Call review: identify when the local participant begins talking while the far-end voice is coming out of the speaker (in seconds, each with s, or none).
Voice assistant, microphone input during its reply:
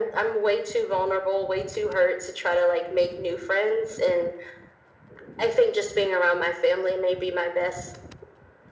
none